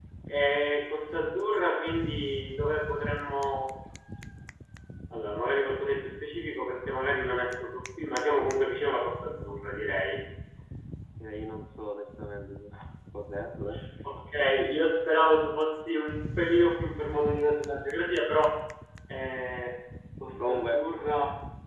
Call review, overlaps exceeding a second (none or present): none